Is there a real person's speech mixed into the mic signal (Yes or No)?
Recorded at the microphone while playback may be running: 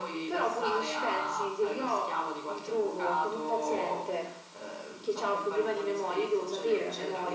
No